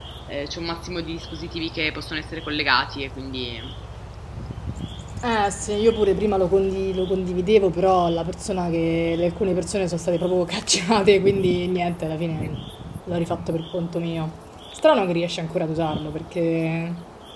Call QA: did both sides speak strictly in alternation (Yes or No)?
Yes